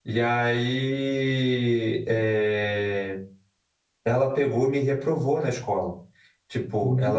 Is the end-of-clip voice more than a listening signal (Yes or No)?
Yes